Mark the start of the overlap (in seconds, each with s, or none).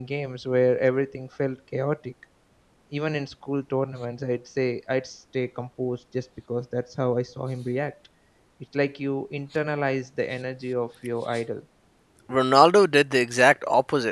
none